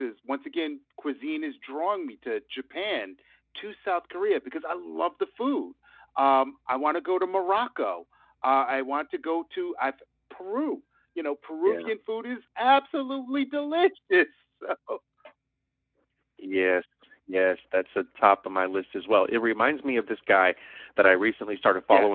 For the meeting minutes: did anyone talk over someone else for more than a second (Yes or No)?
No